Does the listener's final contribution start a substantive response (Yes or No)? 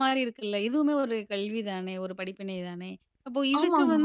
No